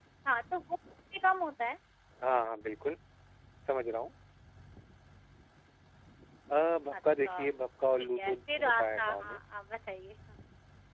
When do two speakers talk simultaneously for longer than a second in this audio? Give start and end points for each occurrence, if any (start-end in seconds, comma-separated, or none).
8.0-9.4